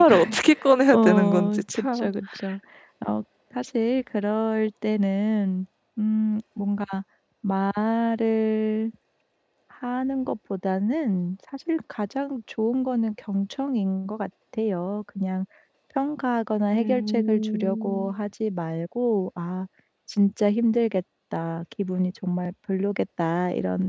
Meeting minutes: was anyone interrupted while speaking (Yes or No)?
Yes